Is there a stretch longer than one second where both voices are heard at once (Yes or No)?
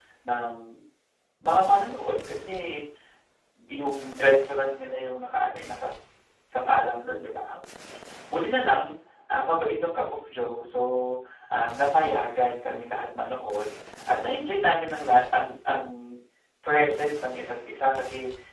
No